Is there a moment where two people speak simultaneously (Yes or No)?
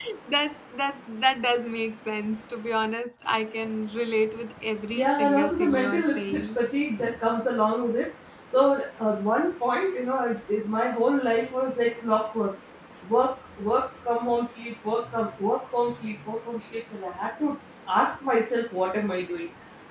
Yes